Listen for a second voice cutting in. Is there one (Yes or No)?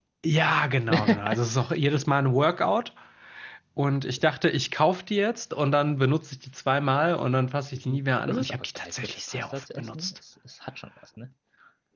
Yes